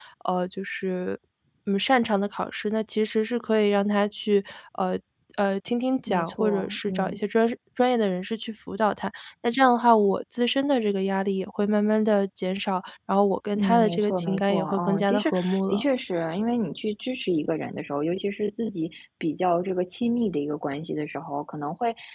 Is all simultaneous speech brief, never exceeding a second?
No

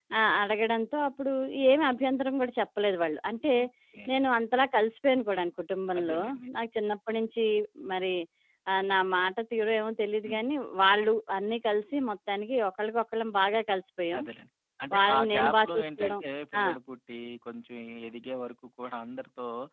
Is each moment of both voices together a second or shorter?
No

